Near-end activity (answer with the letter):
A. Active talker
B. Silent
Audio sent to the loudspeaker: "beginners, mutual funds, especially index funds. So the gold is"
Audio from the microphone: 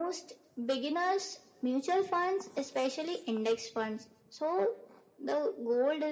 B